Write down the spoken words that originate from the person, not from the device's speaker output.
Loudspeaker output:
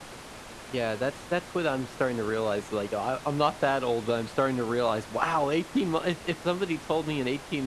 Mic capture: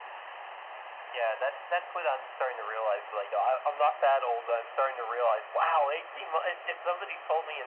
none

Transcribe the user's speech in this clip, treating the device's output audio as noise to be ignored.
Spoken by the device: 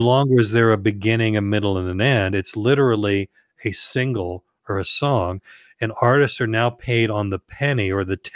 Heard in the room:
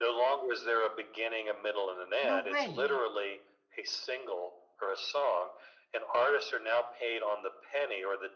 No way!

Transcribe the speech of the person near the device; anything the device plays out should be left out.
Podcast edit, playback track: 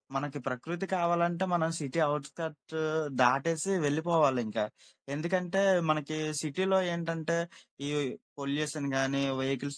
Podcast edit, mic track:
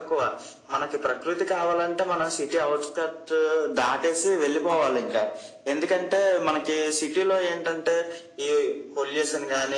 none

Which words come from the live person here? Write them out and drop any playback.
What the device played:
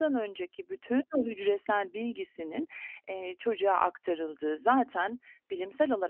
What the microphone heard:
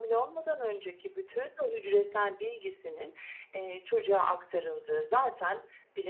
none

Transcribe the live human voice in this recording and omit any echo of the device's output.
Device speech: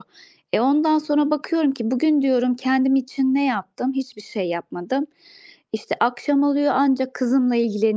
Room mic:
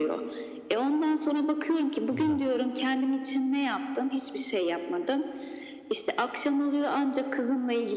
Güzel,

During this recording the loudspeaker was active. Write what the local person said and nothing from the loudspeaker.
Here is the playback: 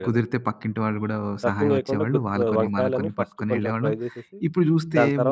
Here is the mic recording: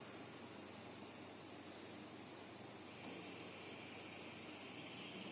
none

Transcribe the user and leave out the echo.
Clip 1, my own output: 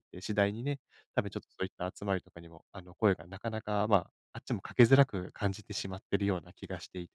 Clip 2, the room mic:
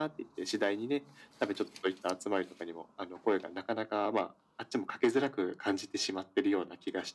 none

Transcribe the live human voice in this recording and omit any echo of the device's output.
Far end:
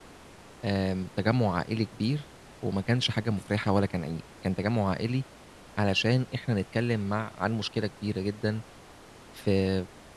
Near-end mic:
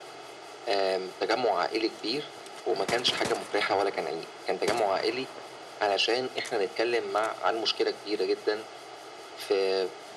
none

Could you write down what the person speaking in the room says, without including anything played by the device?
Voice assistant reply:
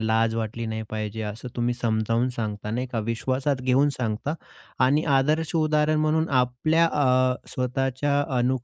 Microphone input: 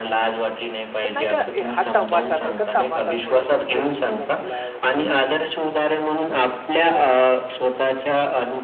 पण नाही का, "ए, हा टमाटा नाही का, टमाटा थोडा धुवून देतोस का मला?" वगैरे.

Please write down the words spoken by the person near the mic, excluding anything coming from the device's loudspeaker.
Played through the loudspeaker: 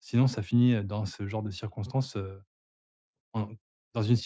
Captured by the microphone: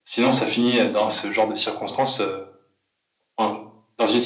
none

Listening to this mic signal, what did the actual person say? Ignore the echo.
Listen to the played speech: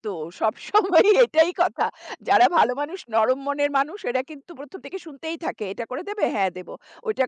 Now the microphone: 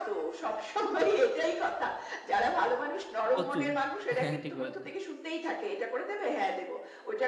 প্রচুর। হ্যাঁ, ঠিক বলেছেন।

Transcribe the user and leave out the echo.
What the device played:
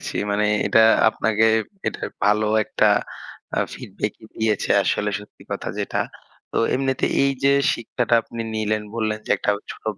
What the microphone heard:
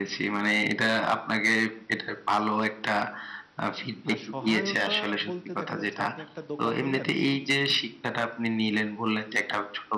আর সহায়তা বলতে দেখা যাচ্ছে আপনি একটা দোকান নিলেন,

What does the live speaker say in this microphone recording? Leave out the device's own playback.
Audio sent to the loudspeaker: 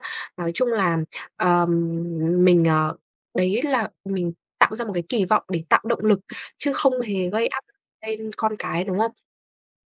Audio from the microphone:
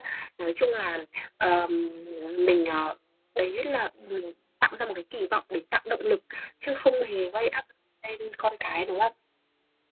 ừm,

